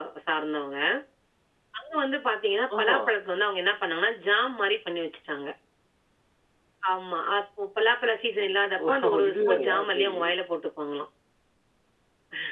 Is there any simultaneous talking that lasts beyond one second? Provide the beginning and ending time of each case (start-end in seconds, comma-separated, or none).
8.9-10.1